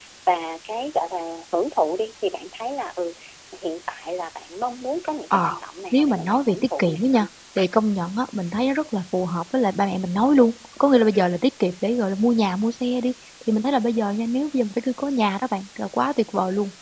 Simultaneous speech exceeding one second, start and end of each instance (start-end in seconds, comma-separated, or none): 5.9-7.3